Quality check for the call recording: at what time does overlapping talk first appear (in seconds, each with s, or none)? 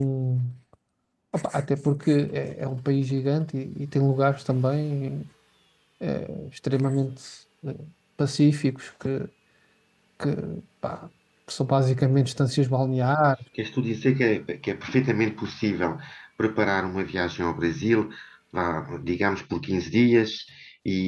none